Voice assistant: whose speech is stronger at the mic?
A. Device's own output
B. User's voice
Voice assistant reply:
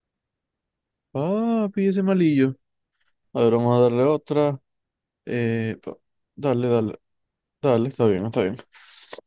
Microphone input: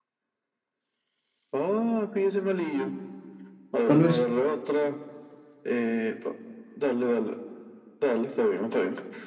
B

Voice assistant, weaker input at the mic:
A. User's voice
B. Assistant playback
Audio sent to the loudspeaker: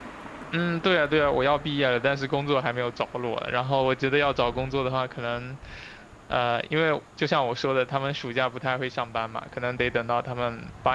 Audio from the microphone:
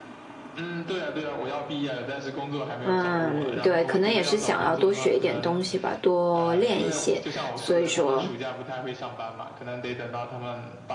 B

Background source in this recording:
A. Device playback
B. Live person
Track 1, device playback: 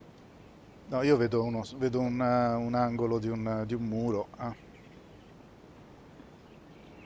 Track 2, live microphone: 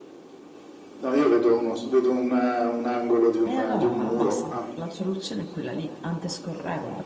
B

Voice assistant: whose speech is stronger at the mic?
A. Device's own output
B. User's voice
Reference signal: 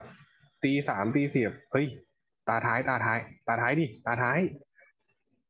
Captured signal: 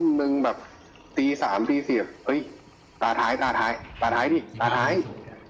A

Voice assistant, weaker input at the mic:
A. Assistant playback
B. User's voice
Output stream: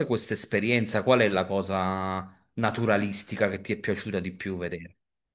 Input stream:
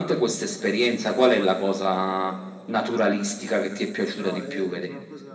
B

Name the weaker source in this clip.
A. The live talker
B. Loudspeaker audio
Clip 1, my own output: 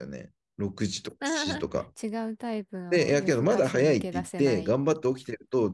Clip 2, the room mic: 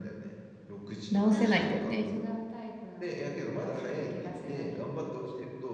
B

